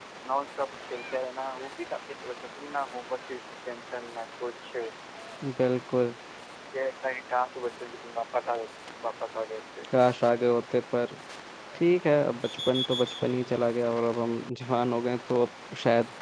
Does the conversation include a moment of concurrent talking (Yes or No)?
No